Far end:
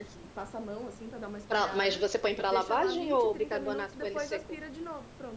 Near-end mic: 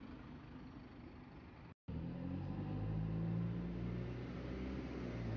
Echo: none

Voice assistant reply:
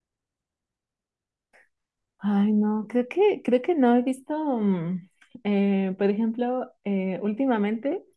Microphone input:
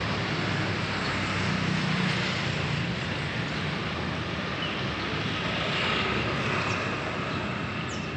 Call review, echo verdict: none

